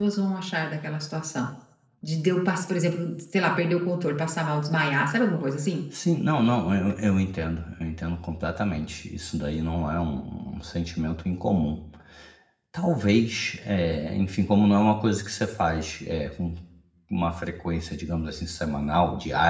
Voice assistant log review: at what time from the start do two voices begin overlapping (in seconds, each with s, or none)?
none